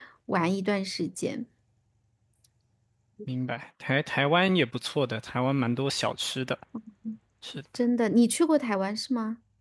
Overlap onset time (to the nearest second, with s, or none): none